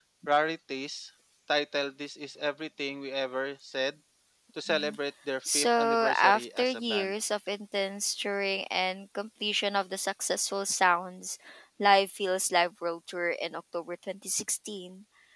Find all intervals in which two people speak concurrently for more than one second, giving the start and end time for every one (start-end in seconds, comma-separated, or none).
5.5-7.1